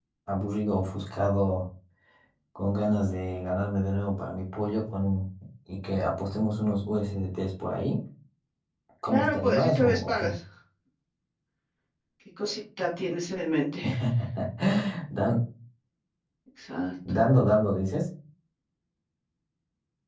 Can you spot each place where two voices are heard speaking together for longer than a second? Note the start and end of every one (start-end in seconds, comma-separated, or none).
9.1-10.3